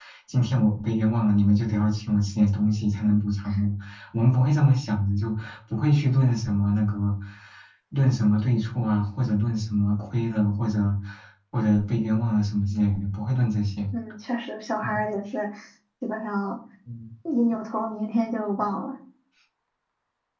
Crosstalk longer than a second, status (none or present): none